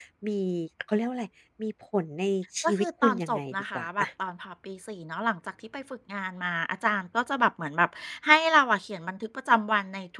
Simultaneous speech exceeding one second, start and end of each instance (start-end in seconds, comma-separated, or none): 2.6-4.0